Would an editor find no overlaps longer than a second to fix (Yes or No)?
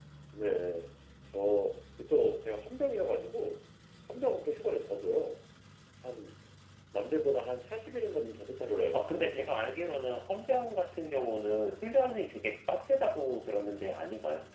No